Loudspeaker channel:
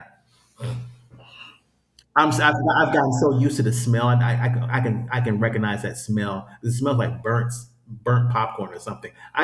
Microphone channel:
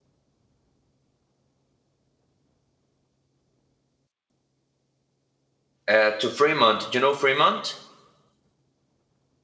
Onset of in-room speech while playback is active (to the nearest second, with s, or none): 6 s